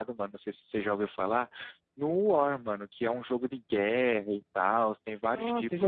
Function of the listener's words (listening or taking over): taking over